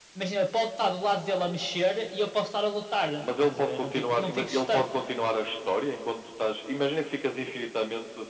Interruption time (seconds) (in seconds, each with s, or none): 3.2 s